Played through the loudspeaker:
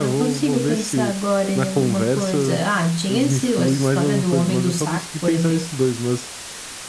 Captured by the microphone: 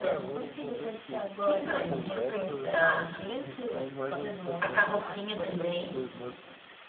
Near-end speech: present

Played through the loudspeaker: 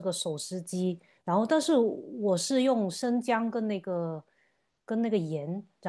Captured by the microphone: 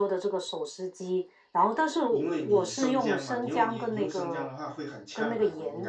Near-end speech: present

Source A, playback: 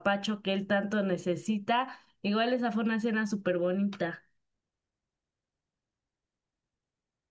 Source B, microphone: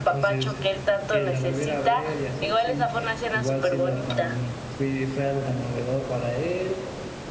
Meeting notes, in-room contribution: present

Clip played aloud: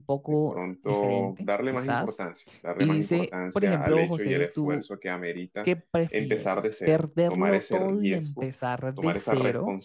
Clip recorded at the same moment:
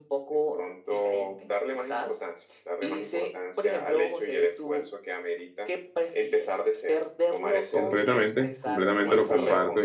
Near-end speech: present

